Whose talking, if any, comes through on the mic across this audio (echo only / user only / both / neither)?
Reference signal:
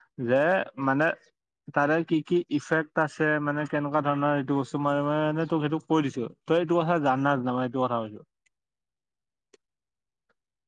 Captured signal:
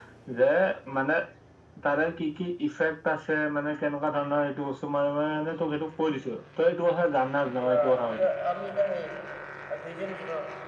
both